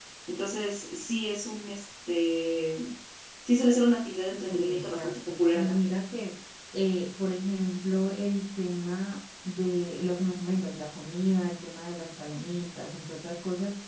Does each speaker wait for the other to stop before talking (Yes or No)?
No